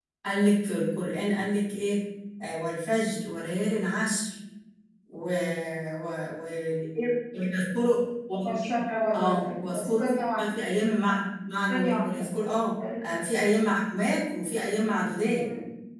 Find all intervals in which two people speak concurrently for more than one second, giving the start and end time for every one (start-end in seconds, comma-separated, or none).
9.2-10.5